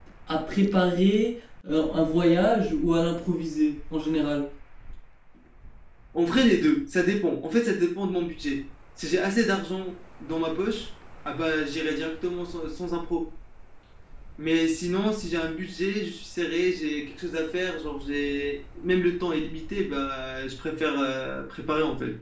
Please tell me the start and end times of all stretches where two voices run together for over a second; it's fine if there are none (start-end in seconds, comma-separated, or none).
none